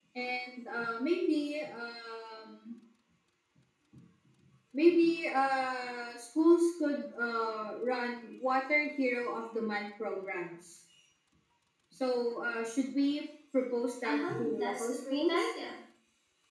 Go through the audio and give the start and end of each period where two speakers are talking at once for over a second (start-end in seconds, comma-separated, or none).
14.0-15.5